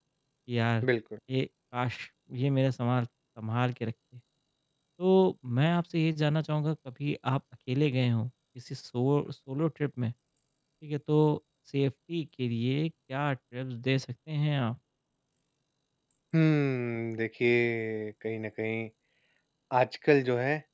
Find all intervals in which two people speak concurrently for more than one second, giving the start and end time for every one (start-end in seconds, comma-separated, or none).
none